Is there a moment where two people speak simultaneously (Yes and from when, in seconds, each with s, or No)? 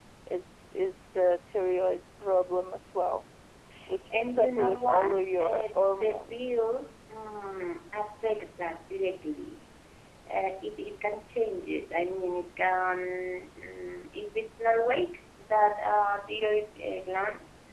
Yes, from 4.1 s